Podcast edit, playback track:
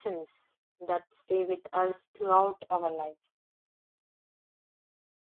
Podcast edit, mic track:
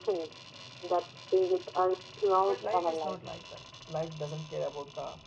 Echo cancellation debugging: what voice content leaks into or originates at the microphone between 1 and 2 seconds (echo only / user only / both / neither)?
echo only